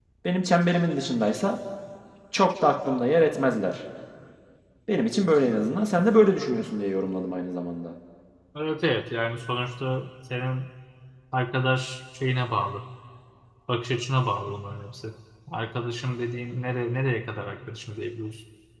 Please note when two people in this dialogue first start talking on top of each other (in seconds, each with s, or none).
none